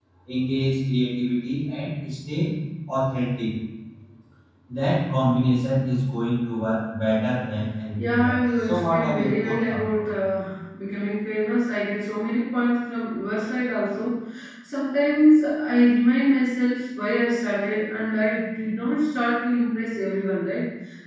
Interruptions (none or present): present